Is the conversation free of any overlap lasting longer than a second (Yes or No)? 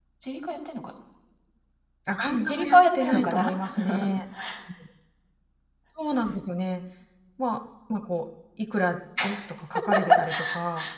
No